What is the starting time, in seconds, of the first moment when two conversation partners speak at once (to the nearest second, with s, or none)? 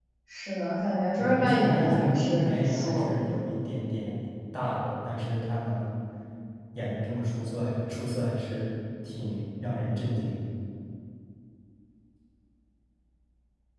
1 s